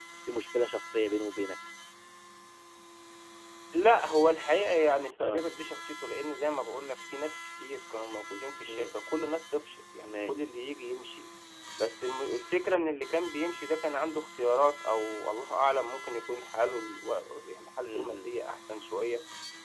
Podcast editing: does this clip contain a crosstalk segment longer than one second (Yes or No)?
No